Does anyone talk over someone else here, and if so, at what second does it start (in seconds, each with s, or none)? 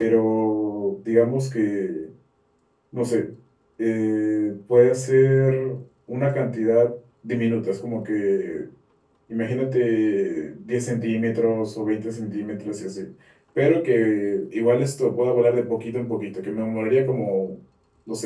none